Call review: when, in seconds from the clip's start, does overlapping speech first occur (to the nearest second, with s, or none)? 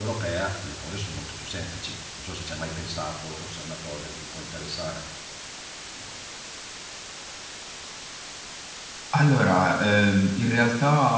none